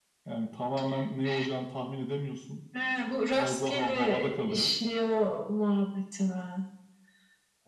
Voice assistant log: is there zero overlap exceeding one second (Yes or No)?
No